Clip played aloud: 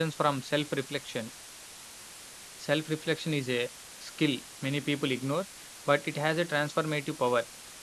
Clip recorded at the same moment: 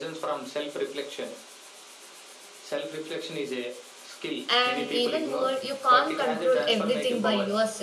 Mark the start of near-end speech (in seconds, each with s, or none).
4.5 s